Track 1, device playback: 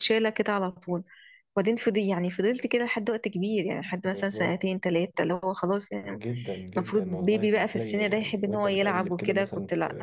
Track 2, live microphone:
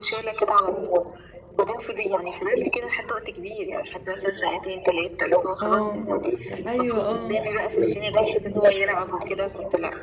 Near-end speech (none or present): present